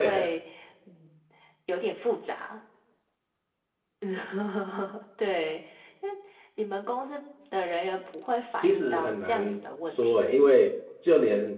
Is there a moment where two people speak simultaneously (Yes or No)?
Yes